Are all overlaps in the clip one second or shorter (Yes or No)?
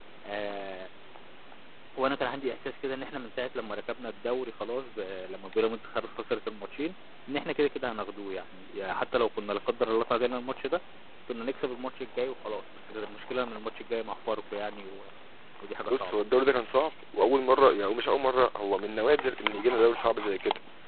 Yes